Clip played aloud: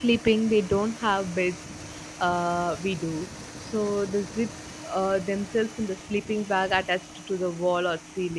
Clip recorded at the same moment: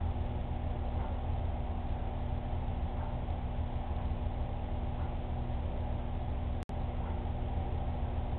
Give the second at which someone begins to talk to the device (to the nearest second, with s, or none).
none